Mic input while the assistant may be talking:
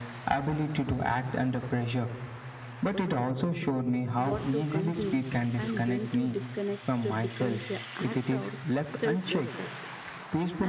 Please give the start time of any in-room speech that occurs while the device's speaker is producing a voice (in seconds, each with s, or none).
4.1 s